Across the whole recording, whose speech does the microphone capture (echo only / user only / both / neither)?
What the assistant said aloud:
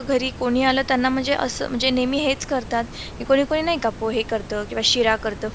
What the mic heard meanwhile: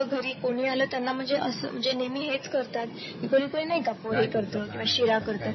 both